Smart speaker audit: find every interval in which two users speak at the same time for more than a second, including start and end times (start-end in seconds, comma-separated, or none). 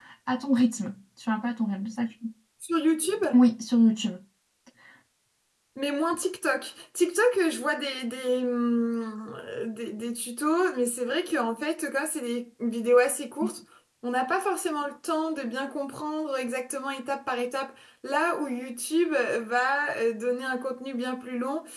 none